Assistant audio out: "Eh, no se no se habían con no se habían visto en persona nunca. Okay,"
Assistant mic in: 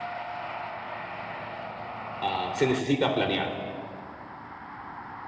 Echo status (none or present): none